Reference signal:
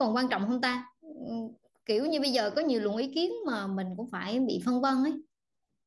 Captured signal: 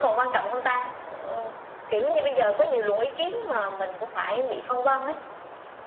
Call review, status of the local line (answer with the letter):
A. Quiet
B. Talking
A